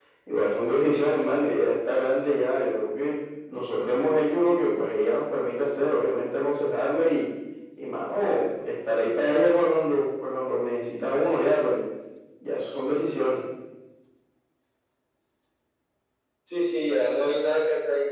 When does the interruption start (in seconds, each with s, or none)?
none